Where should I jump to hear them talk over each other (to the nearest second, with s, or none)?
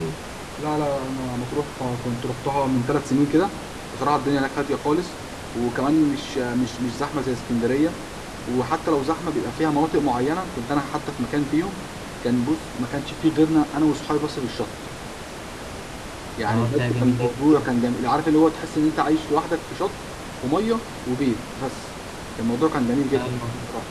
16 s